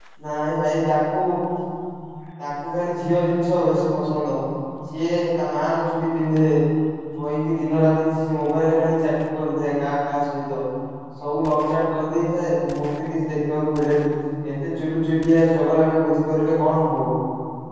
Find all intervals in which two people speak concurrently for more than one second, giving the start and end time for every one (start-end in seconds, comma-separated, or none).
none